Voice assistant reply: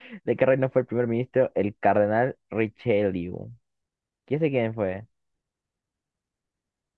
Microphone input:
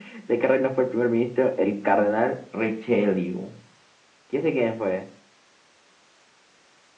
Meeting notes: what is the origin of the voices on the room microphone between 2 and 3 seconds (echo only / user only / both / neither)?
echo only